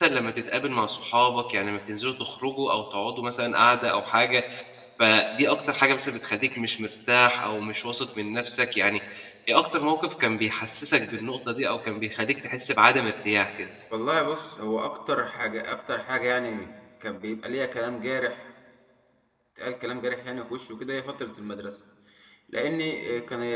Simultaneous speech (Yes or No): No